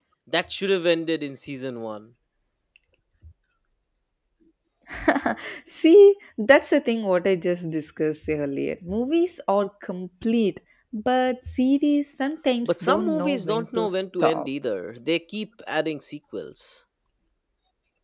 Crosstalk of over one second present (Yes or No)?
Yes